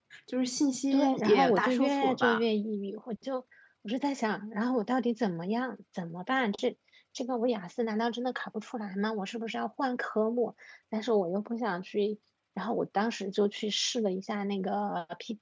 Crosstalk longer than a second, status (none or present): present